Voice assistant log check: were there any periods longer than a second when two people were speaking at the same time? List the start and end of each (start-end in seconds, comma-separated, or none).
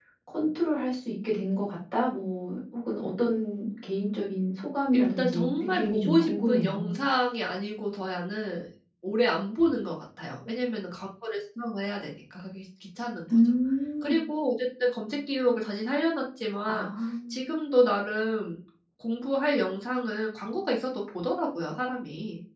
4.9-6.9